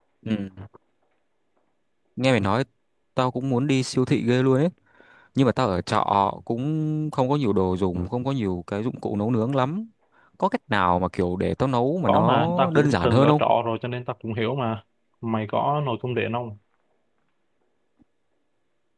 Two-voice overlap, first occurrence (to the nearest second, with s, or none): 12 s